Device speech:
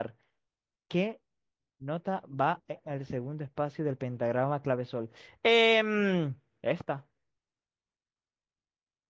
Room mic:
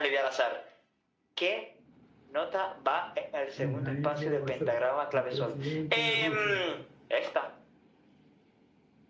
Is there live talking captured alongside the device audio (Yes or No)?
Yes